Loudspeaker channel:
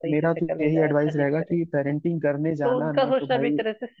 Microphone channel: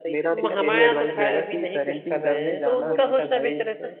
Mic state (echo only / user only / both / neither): both